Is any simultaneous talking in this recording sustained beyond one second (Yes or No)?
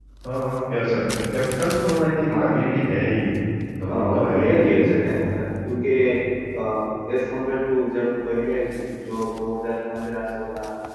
Yes